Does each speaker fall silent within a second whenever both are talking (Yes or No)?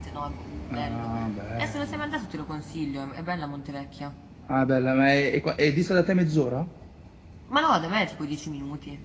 Yes